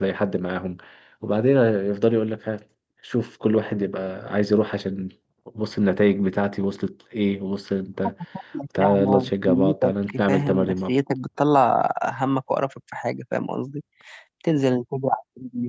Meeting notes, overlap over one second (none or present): present